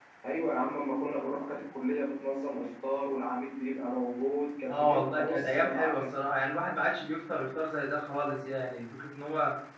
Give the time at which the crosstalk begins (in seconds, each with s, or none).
4.7 s